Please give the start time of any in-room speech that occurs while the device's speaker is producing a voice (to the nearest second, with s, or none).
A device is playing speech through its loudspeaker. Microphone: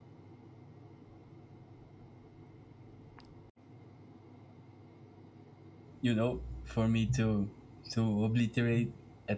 6 s